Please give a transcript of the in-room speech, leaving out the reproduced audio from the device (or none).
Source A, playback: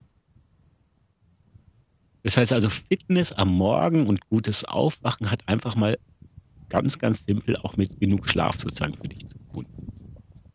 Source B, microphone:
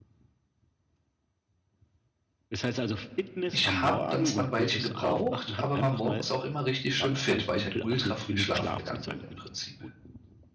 ich habe dann zwar 'n Weilchen gebraucht, aber war morgens auch immer richtig schön fit, weil ich halt ultra früh schlafen gegangen bin im Prinzip.